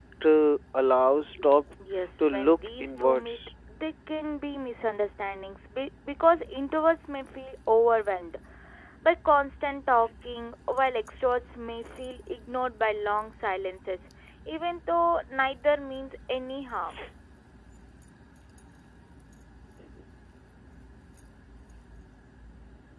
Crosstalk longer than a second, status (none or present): present